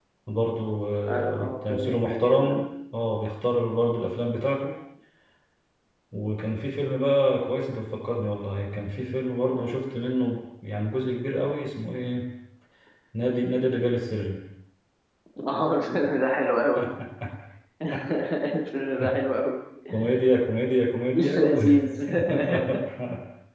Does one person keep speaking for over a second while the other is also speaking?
Yes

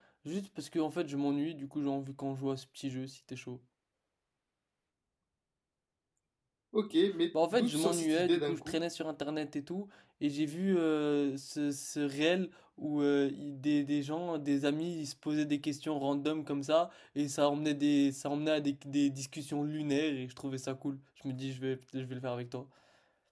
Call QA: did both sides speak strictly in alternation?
No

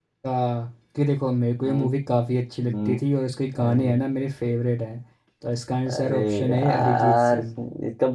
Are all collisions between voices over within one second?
No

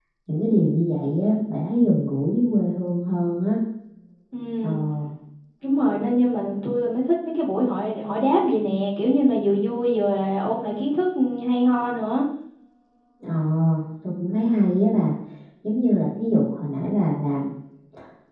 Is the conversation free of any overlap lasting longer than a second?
Yes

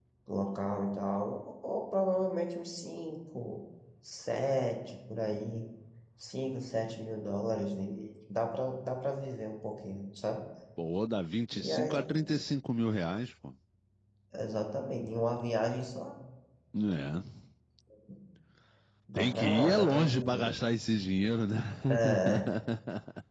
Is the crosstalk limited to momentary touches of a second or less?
No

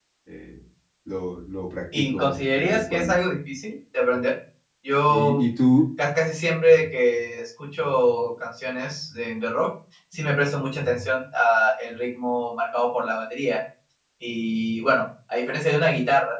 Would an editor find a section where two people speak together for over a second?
Yes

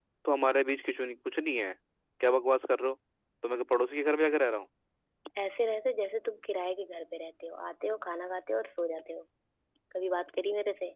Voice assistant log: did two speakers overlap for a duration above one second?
No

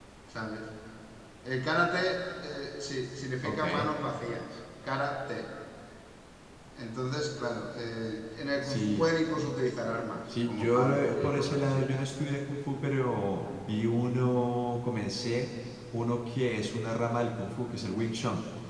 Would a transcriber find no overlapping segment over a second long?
No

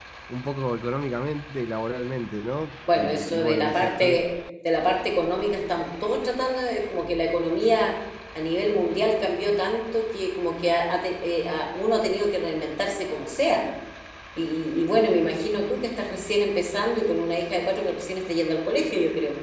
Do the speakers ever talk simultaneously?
Yes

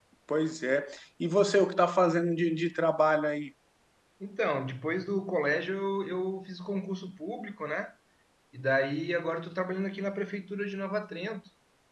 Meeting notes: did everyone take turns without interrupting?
Yes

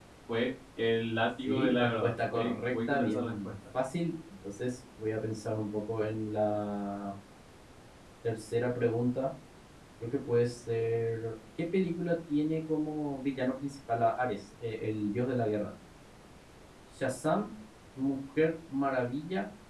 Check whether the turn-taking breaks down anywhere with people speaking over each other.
Yes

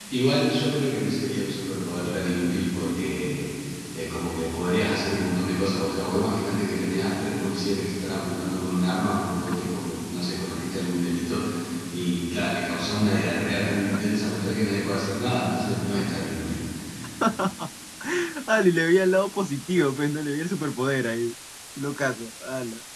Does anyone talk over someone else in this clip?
No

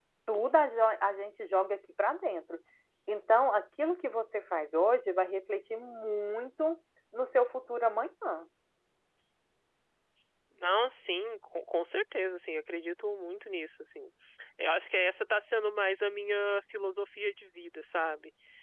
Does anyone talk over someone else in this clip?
No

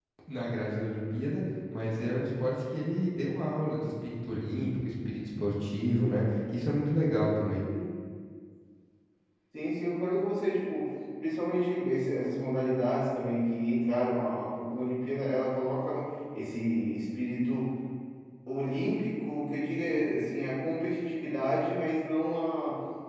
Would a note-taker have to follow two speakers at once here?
No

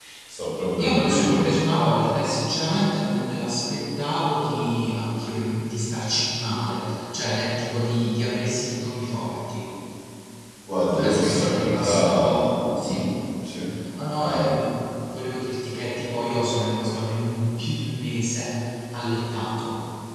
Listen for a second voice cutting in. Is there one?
Yes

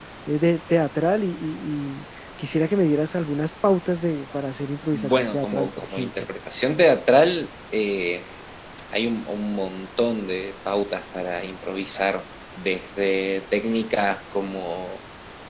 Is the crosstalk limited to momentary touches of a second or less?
No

